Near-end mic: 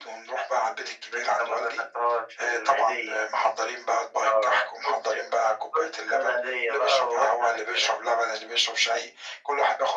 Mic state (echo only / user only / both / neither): echo only